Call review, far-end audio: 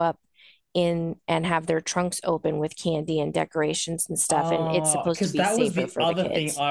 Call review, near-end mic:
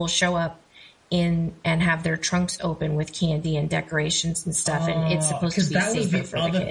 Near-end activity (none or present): none